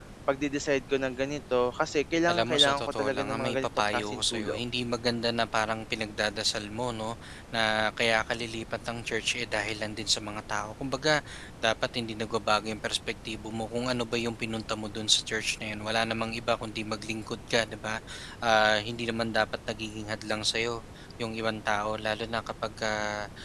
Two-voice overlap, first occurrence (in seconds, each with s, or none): 2.3 s